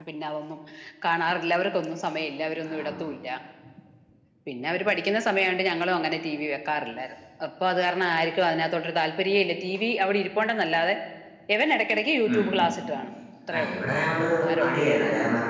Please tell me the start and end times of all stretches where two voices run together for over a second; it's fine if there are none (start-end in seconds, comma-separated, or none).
none